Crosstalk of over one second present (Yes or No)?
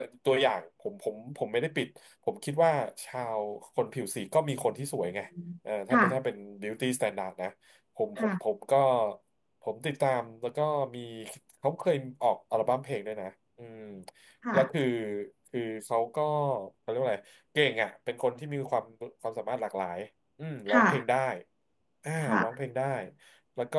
No